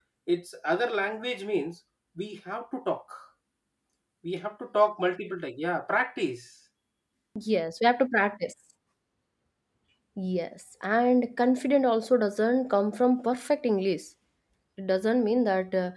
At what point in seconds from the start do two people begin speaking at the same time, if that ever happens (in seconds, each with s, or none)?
none